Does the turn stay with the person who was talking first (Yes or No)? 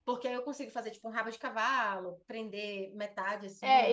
No